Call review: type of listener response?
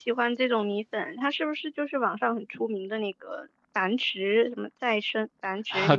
taking over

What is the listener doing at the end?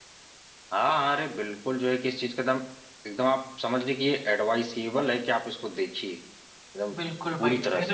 taking over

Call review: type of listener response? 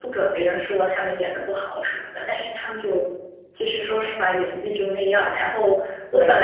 listening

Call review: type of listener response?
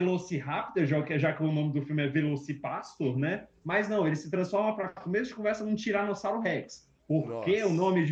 listening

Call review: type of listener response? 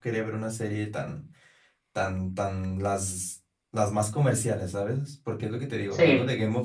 listening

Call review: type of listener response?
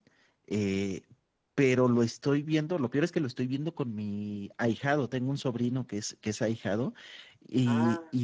listening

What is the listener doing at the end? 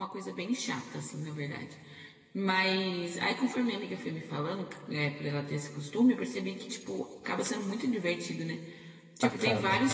listening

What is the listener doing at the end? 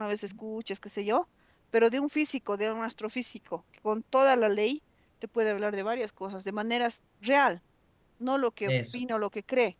listening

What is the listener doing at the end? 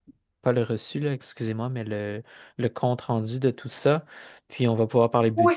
taking over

